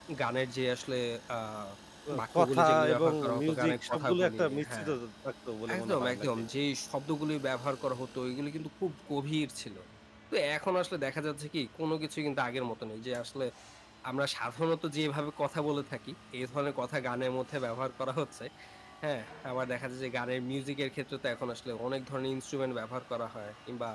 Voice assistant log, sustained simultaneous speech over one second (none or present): present